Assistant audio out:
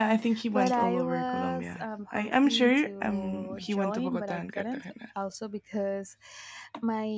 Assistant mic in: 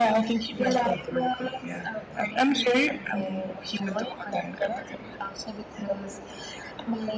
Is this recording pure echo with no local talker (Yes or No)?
Yes